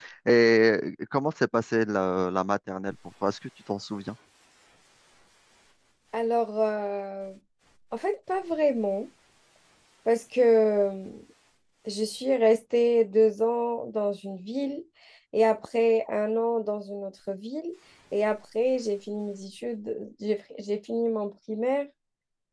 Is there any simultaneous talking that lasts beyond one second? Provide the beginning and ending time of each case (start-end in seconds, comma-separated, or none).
none